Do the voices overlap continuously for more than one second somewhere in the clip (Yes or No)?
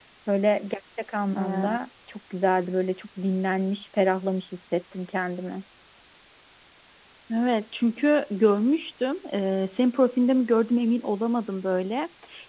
No